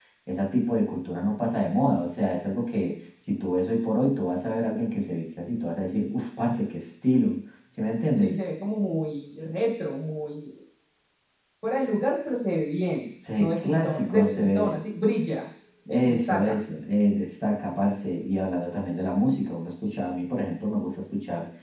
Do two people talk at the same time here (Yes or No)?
Yes